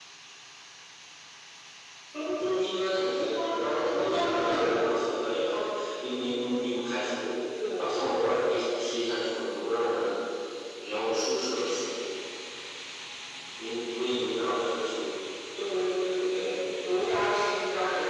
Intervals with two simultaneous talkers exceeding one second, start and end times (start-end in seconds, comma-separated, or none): 3.1-4.9